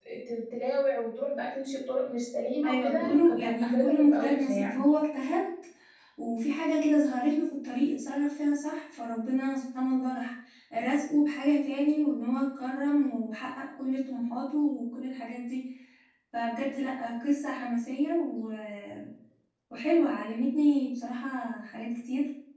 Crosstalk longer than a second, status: present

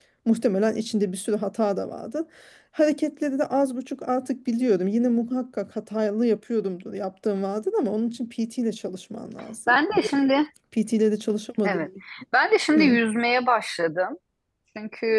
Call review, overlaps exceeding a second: none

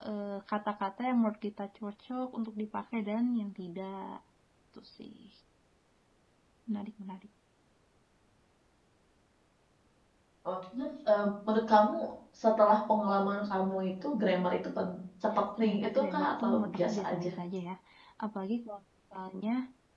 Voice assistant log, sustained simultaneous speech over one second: present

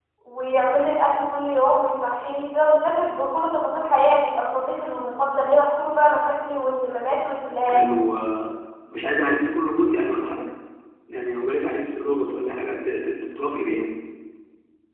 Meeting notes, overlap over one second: none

